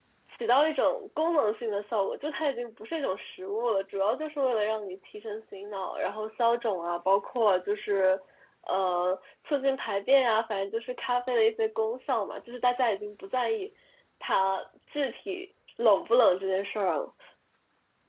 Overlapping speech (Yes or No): No